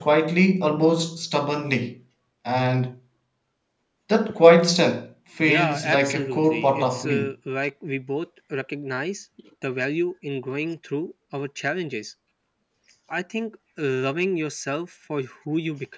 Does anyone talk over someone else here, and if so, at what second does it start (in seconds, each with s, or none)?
5.4 s